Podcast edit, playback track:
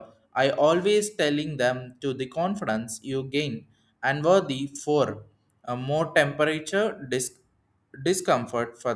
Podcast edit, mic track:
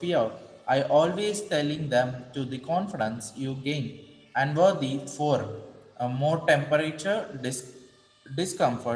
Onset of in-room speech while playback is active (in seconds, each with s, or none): none